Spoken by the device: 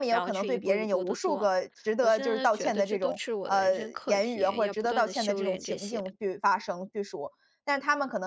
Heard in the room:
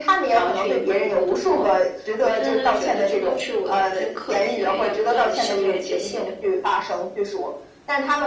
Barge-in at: none

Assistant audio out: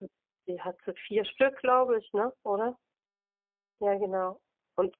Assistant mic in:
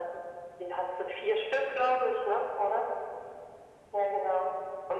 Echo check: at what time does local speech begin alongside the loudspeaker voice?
none

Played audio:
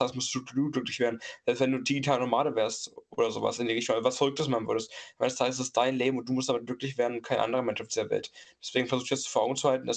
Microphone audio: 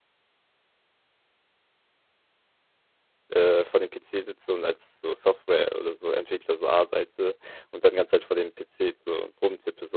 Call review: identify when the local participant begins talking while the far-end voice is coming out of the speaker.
3.3 s

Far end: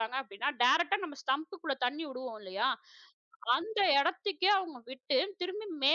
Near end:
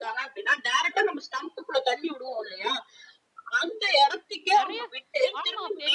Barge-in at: 4.6 s

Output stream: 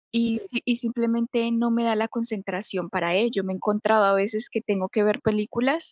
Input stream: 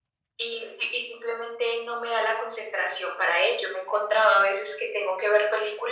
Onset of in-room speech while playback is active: none

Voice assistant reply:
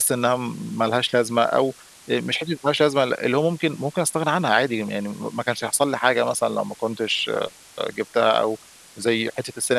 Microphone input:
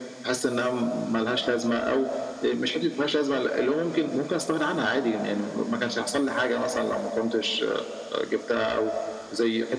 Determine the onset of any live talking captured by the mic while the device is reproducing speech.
none

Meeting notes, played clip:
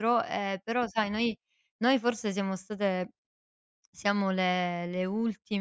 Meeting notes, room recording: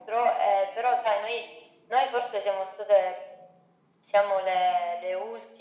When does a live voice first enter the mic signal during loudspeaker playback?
none

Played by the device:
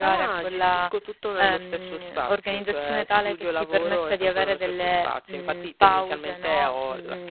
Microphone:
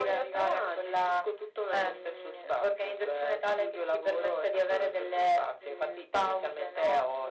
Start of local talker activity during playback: none

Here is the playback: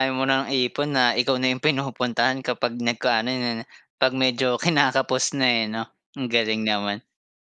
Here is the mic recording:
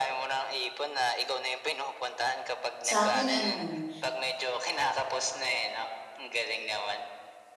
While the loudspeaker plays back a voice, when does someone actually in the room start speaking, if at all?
2.8 s

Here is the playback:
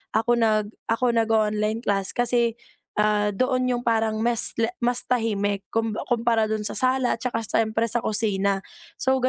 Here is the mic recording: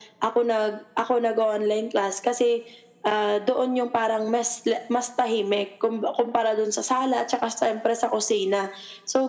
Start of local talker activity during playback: none

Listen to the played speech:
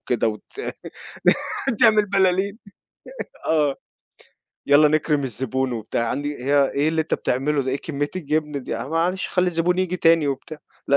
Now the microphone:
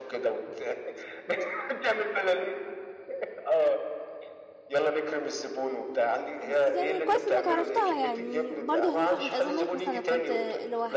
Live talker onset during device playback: 6.4 s

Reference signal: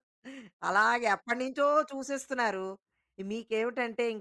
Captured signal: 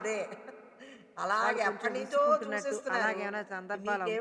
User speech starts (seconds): 1.4 s

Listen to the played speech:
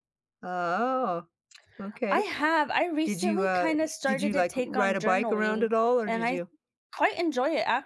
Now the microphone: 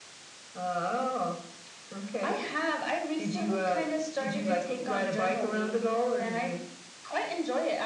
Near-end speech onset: none

